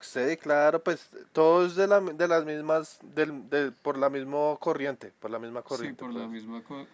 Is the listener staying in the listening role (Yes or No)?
No